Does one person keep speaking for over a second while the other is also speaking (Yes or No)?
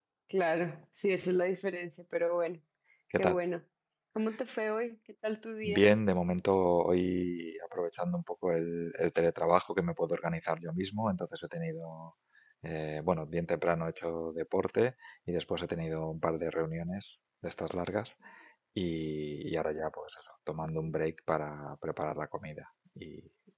No